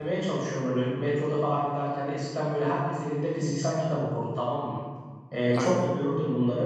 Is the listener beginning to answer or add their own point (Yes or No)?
No